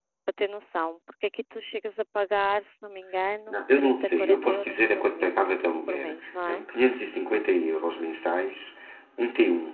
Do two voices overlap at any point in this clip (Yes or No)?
Yes